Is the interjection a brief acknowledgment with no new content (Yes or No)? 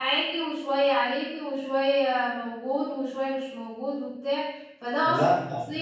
Yes